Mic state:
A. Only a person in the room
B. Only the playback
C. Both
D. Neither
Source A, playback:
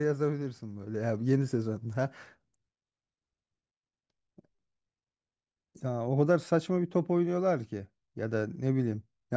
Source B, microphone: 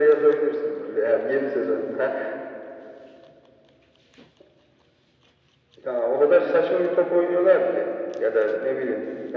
B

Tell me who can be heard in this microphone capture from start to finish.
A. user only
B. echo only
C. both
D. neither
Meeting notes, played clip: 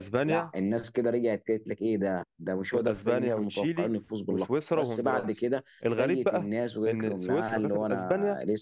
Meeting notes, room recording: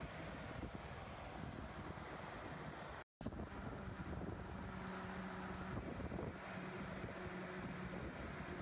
D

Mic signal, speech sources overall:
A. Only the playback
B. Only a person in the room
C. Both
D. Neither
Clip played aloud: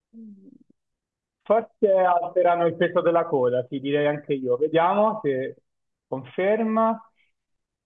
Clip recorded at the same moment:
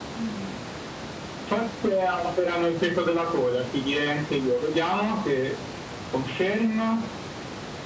A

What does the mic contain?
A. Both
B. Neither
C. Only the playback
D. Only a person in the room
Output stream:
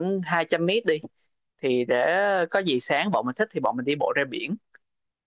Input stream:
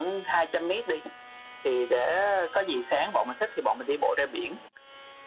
C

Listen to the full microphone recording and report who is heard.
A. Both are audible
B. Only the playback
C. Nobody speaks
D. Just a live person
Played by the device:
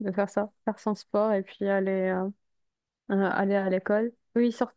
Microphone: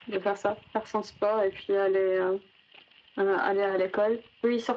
B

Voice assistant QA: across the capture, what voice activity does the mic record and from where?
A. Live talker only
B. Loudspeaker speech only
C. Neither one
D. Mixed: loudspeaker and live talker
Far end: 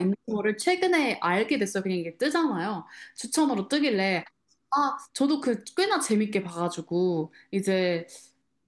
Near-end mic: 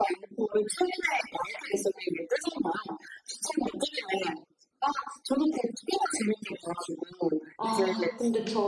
D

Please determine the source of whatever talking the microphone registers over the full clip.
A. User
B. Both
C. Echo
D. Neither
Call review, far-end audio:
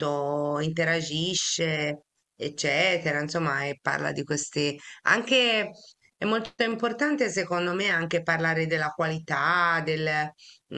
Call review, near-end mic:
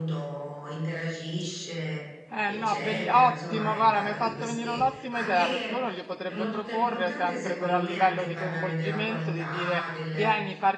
B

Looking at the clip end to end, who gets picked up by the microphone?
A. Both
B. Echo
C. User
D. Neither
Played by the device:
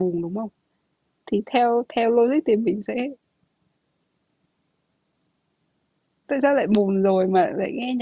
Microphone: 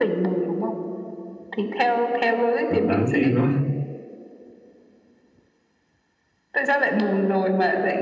A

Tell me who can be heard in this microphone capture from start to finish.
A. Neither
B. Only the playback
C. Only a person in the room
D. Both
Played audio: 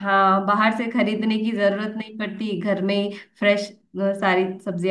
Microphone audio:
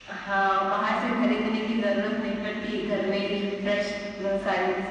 B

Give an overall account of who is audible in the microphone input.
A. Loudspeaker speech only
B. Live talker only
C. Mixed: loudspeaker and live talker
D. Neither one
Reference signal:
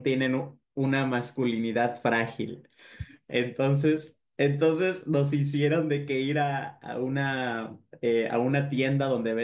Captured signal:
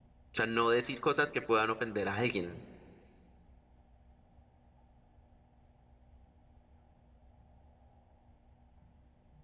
B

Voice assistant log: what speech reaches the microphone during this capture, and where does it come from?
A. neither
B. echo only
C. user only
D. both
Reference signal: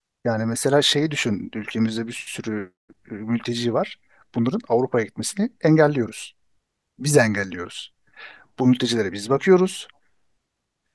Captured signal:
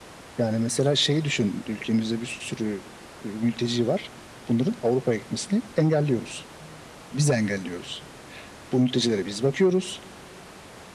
B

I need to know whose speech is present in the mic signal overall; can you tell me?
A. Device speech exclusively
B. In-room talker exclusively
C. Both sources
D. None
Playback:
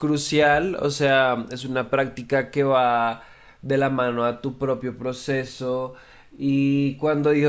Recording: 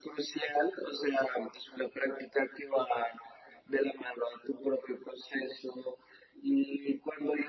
A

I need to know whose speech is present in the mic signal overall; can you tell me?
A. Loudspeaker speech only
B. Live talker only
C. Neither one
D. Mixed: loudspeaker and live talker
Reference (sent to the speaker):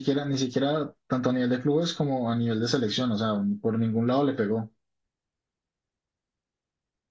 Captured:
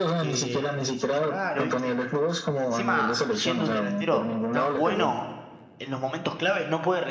D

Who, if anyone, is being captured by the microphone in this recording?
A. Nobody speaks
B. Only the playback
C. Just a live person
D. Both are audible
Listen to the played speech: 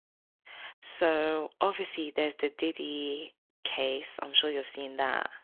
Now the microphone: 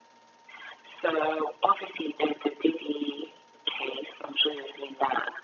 B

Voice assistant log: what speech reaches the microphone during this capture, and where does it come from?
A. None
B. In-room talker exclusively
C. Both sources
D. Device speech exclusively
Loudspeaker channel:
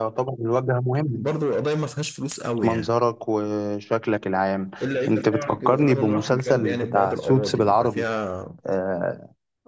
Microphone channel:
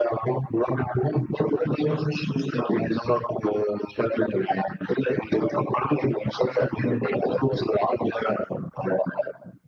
D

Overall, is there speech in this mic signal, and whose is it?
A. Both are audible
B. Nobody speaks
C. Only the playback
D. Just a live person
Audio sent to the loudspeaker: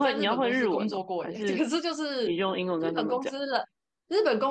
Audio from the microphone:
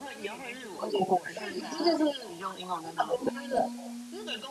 A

